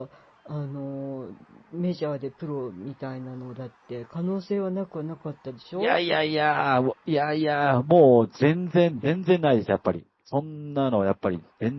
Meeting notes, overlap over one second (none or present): none